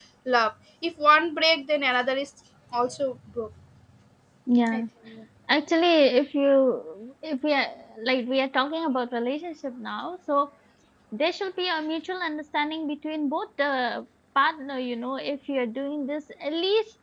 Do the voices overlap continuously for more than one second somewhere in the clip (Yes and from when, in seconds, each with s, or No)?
No